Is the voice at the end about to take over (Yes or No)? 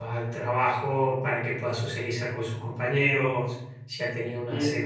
Yes